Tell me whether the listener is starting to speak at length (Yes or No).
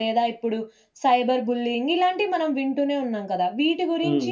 No